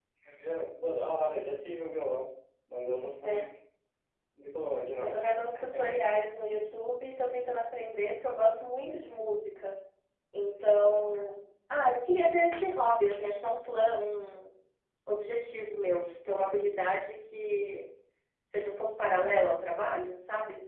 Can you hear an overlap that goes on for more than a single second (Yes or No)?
No